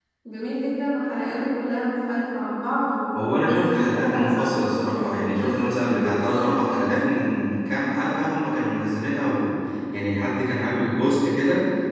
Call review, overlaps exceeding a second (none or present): present